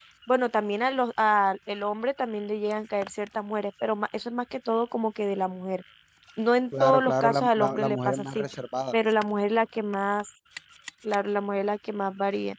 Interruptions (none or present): present